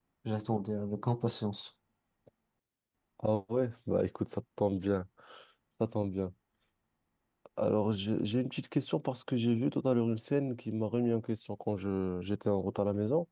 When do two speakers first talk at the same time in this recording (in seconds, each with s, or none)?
none